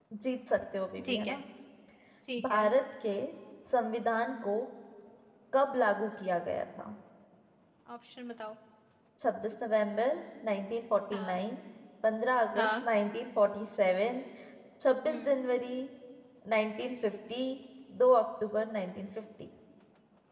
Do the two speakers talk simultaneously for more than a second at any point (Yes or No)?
No